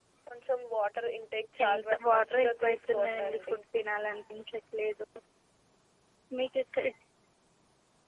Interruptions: present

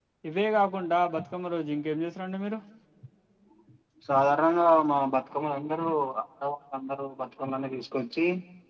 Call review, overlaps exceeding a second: none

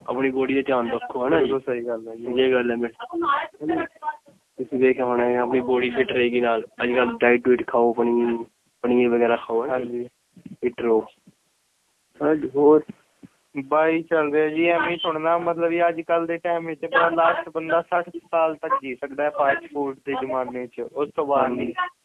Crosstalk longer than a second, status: none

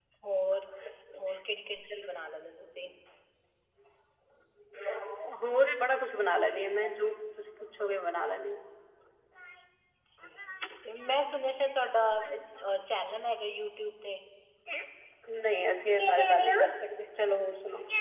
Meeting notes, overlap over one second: none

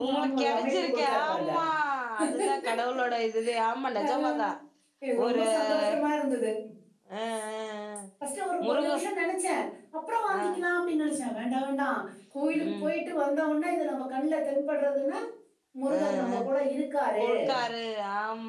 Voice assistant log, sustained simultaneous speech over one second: present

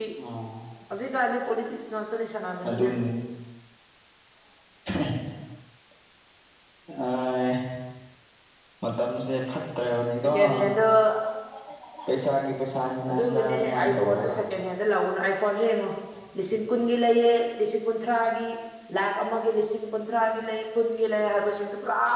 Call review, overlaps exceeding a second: present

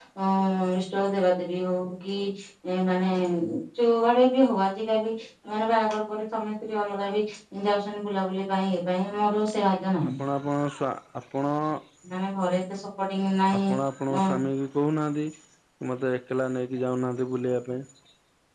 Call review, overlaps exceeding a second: none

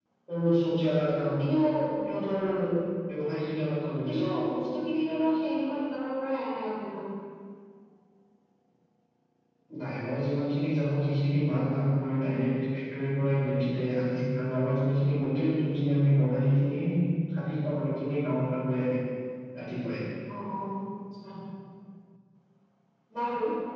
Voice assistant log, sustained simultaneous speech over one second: none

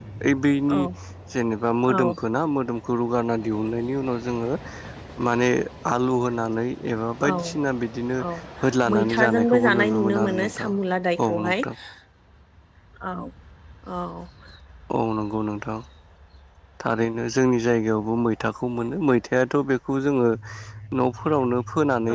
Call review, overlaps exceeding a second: present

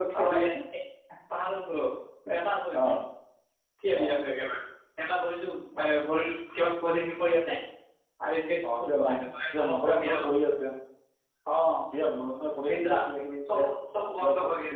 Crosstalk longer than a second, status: present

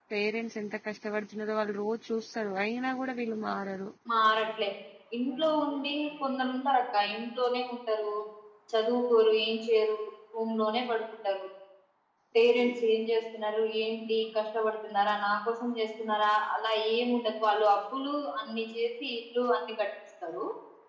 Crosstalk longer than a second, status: none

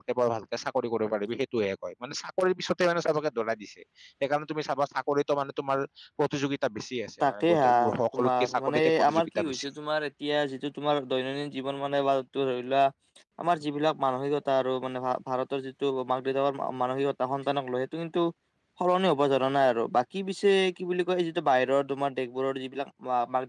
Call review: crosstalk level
present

